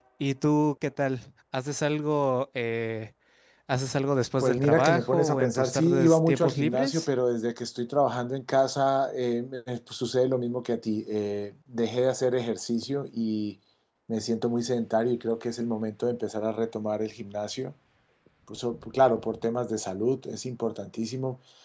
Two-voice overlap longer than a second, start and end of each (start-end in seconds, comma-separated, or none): 4.4-7.1